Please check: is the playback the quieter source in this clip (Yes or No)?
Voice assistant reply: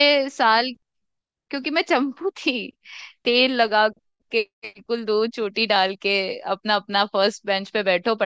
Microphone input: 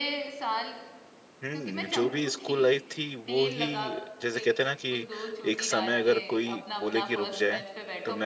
Yes